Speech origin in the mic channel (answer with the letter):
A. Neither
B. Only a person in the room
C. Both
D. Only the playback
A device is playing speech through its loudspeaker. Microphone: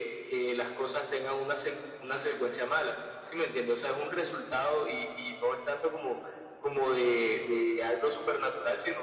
D